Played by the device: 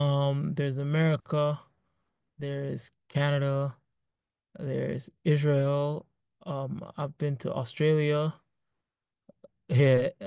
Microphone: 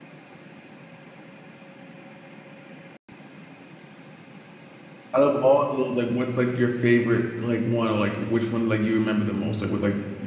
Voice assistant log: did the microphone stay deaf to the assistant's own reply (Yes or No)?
Yes